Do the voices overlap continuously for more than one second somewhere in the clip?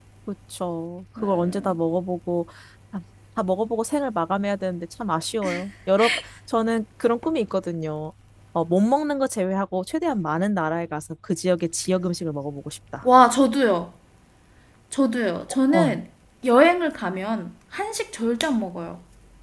No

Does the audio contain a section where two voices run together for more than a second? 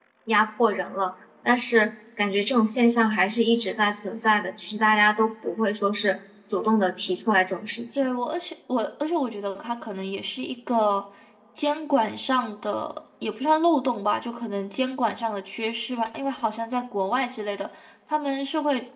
No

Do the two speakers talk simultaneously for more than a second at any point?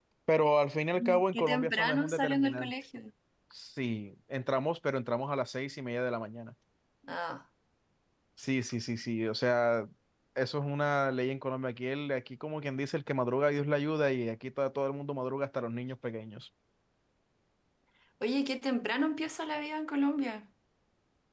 Yes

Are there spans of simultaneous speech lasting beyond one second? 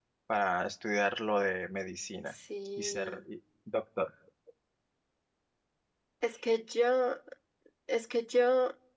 No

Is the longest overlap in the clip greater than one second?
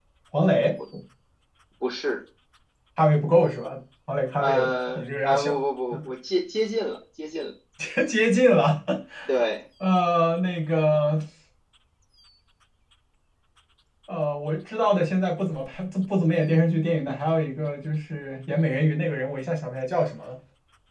Yes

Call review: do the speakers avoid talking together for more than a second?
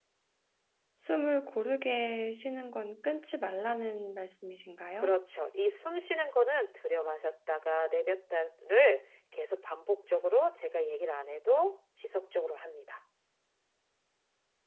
Yes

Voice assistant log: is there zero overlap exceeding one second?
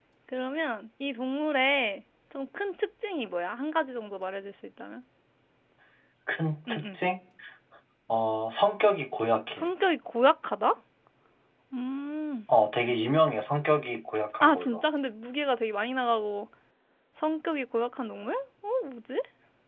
Yes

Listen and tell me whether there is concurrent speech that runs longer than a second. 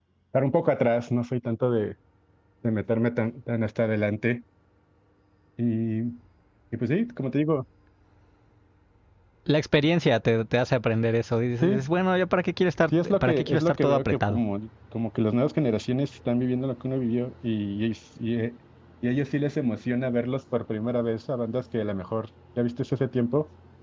Yes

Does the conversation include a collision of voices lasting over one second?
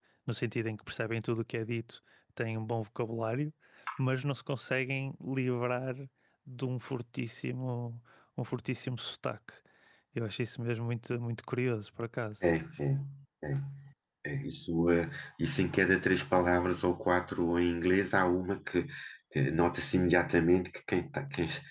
No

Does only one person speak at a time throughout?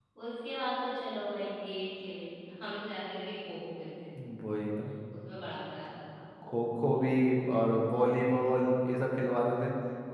Yes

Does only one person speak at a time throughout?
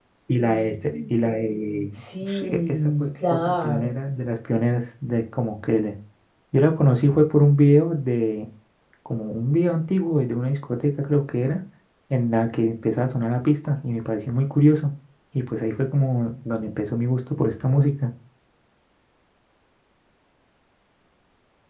No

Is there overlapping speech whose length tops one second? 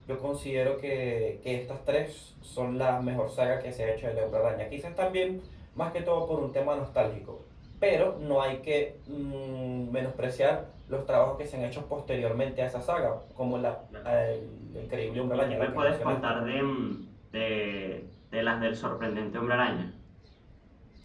Yes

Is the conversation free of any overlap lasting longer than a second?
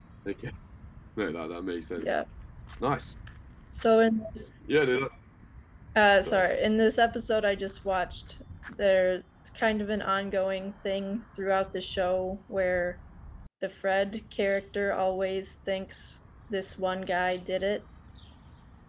Yes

